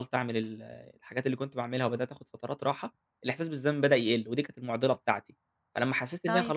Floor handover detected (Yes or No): No